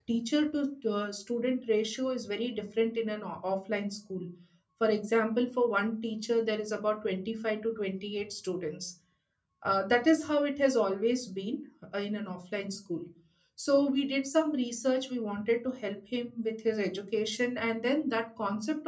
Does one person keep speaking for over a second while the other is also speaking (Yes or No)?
No